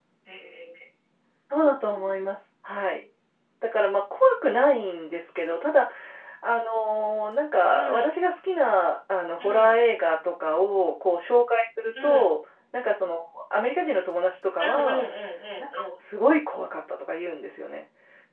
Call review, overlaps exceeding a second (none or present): none